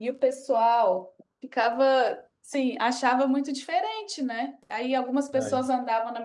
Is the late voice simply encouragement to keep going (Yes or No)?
Yes